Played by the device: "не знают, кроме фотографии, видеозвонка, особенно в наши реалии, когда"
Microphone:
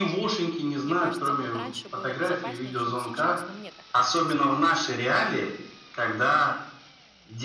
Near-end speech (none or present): present